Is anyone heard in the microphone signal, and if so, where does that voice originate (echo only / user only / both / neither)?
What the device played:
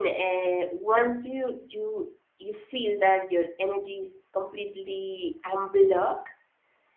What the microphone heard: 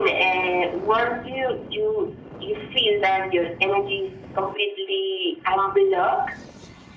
echo only